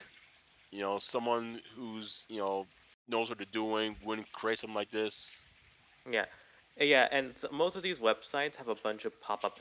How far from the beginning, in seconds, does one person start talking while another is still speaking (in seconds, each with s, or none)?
none